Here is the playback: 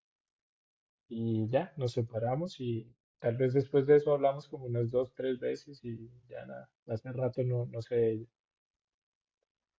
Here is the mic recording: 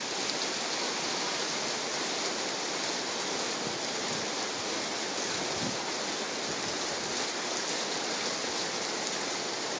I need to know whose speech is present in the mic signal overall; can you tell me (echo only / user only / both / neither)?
neither